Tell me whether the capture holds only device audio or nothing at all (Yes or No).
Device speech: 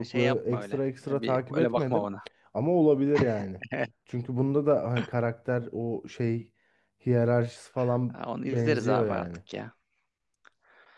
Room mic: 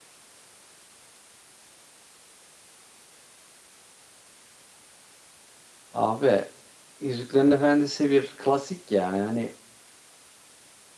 No